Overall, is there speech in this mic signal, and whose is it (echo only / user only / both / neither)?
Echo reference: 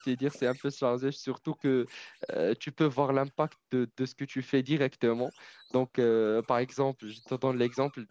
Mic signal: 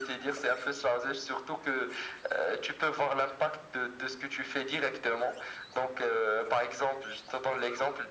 echo only